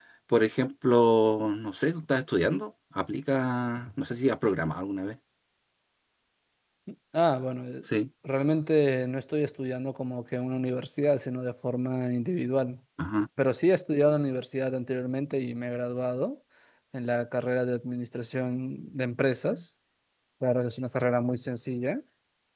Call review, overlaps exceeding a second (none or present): none